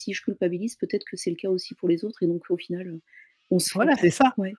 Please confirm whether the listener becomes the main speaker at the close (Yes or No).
Yes